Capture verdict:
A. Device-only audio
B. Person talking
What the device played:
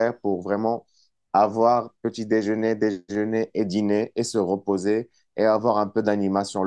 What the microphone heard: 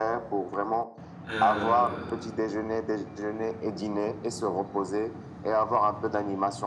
B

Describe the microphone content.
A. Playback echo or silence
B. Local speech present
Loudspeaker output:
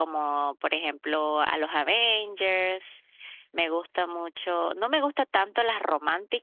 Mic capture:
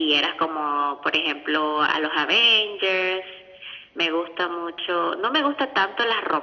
A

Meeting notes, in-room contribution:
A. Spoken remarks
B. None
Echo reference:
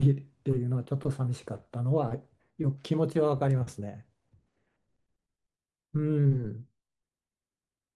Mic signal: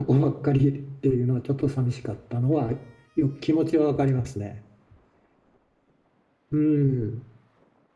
B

